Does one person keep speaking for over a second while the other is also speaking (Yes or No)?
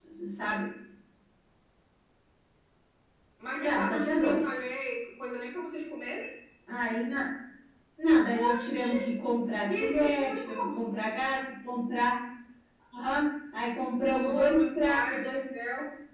Yes